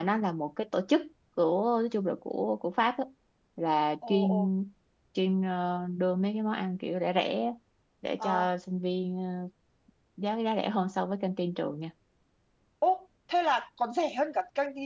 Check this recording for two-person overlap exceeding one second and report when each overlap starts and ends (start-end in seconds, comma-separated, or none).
none